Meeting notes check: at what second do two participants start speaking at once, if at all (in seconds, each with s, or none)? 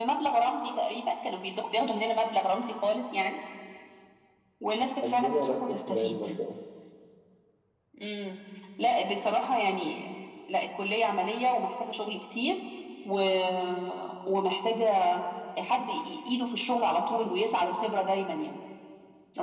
5.0 s